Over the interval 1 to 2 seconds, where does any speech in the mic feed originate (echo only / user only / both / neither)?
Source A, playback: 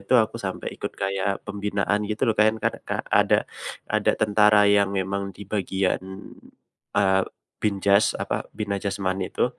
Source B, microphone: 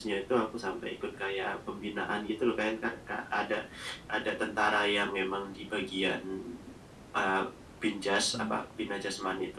echo only